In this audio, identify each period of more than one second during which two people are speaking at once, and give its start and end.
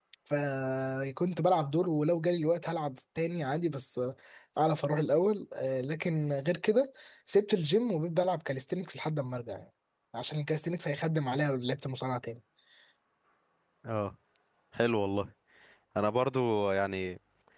none

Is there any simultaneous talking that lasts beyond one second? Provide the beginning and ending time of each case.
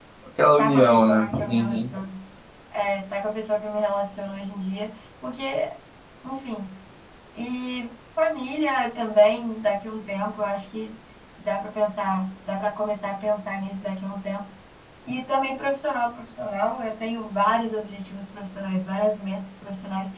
0.6-1.8

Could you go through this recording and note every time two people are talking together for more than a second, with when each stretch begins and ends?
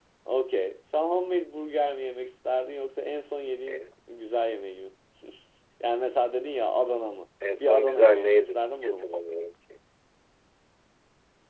7.6-9.1

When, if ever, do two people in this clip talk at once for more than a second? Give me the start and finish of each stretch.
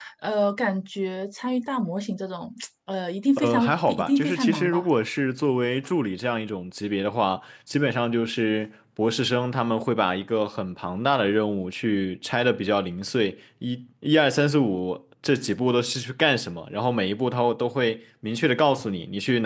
3.4-4.9

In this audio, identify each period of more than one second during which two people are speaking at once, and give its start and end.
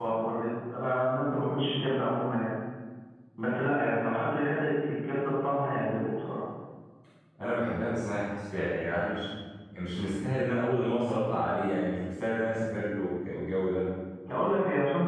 none

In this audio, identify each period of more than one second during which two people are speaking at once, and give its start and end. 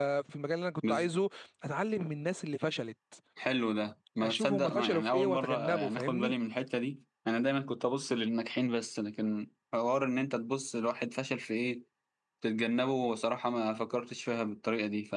4.2-6.3

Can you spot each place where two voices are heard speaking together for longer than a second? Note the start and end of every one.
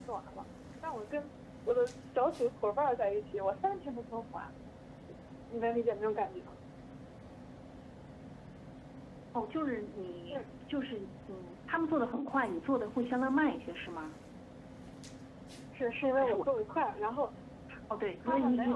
none

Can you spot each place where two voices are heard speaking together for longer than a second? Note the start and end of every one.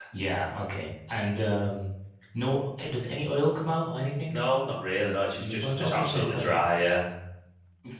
5.4-6.6

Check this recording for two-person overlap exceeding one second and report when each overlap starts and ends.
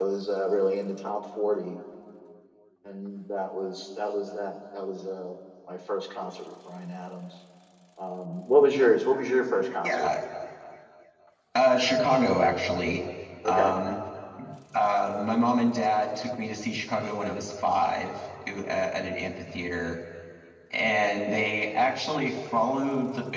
none

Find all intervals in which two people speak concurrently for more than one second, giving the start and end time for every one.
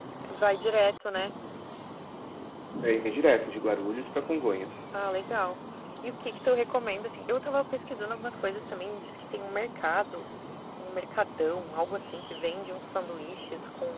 none

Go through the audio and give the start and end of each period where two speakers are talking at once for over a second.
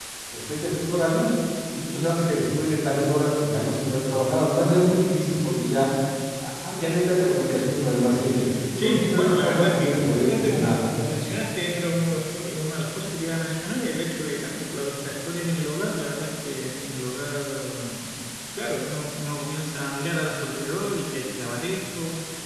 8.8-10.8

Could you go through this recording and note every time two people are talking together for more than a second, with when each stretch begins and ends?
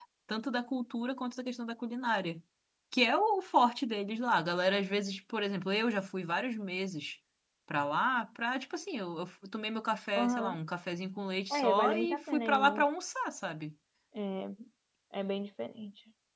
11.5-12.8

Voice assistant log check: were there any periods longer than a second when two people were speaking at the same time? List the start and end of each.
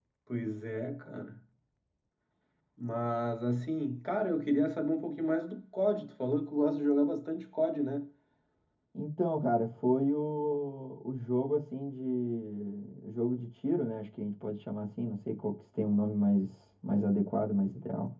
none

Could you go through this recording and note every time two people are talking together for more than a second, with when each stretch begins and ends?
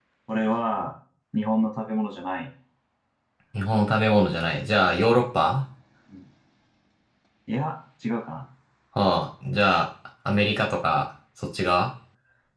none

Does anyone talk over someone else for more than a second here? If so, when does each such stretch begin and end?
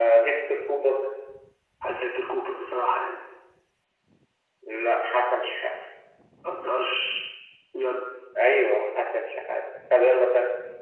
none

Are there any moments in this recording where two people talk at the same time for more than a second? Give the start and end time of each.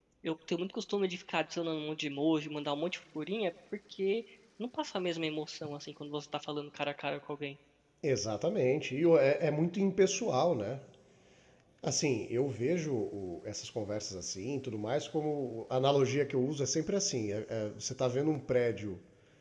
none

